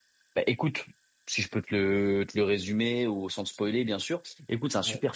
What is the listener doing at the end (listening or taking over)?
listening